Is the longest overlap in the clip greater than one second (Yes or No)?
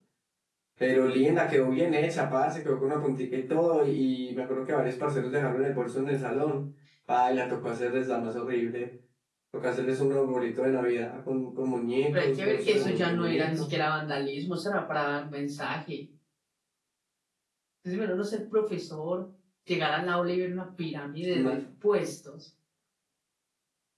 Yes